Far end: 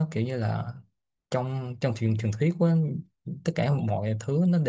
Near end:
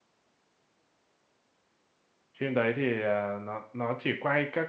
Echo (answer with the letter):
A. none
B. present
A